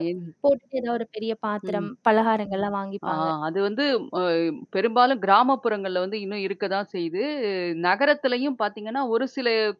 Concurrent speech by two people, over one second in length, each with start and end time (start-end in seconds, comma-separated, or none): none